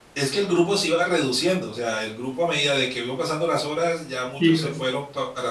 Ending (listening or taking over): listening